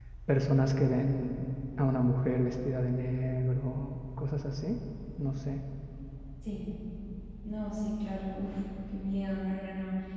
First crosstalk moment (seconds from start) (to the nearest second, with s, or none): none